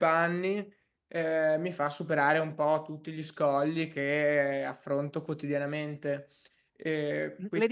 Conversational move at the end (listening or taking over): taking over